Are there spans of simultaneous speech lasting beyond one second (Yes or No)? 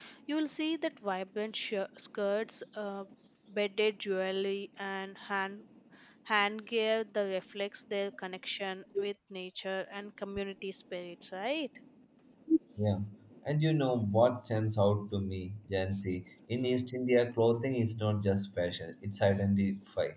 No